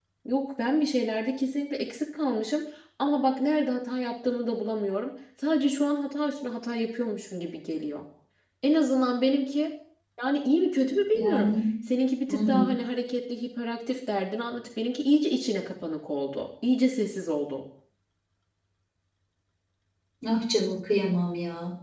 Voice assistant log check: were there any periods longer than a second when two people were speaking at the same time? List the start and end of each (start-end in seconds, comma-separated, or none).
none